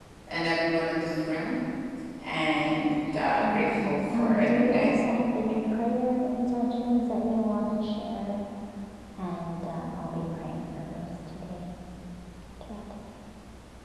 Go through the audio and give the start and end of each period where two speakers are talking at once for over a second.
3.4-4.9

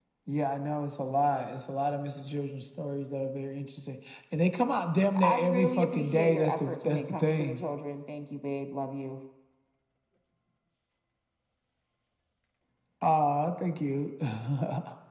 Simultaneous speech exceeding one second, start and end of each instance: 5.2-7.6

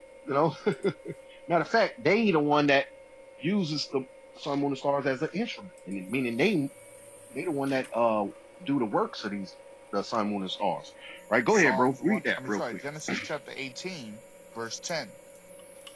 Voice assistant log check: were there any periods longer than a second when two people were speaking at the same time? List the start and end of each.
11.5-12.8

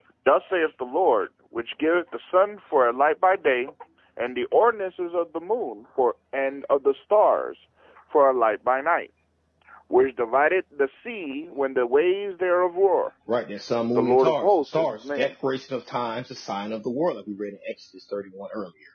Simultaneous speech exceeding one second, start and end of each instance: 14.0-15.3

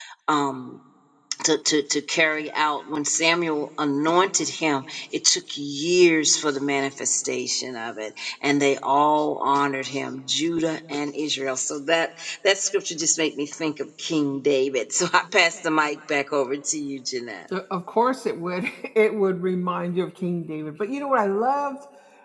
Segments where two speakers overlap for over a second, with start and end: none

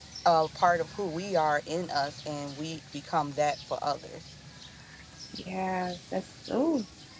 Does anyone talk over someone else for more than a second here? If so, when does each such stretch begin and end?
none

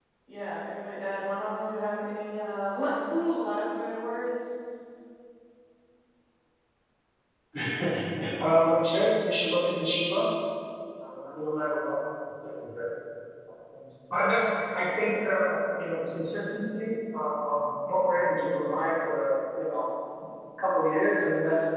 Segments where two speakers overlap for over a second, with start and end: none

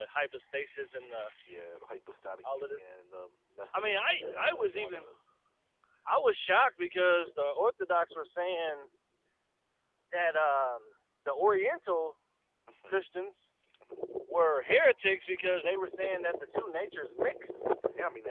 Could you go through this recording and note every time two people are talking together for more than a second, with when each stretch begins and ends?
3.8-5.0

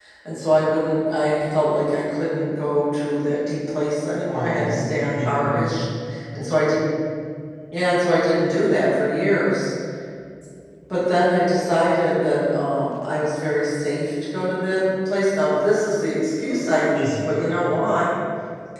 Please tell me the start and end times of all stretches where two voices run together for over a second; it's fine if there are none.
4.3-5.6

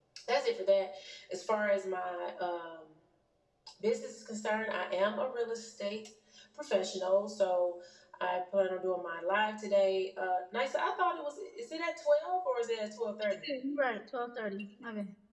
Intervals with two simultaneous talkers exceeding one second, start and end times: none

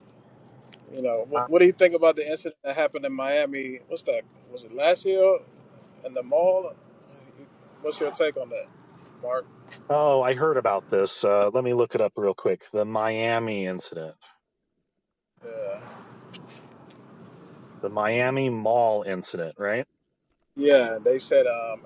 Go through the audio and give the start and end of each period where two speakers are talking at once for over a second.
none

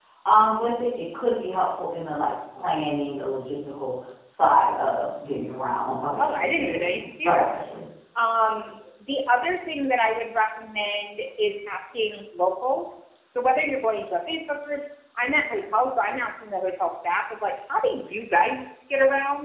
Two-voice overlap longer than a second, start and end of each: 6.2-7.6

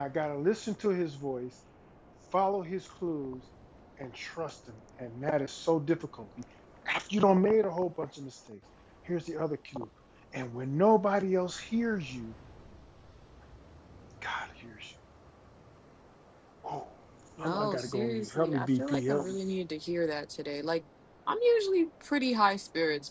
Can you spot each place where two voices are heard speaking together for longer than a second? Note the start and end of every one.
17.4-19.3

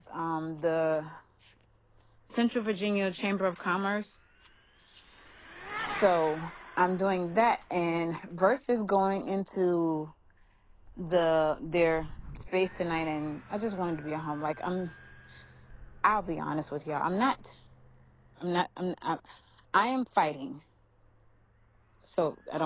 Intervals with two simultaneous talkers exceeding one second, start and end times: none

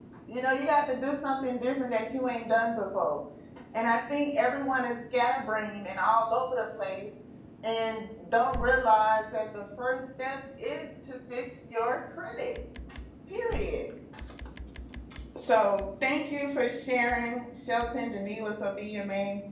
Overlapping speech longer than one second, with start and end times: none

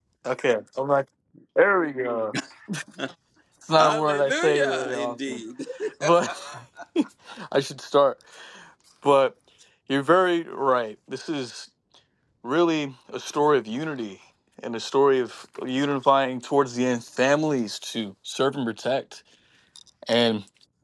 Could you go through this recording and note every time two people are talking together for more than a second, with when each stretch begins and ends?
3.7-5.4

